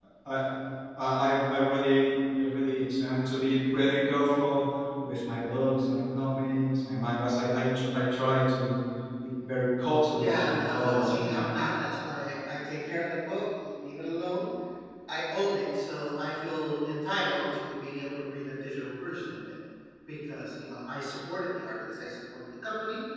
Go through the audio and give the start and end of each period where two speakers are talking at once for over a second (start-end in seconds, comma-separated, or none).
10.1-11.5